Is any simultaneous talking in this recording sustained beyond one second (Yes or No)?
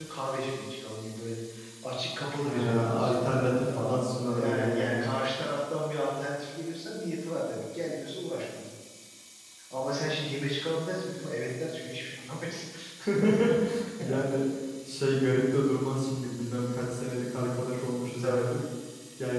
Yes